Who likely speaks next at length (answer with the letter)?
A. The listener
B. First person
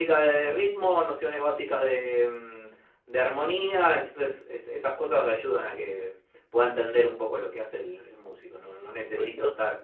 B